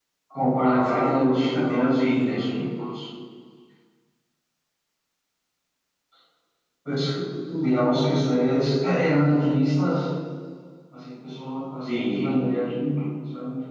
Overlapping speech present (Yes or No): Yes